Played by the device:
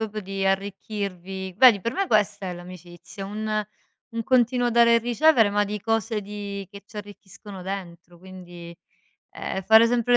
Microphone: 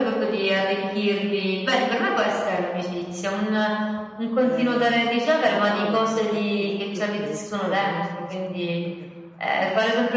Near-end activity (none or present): present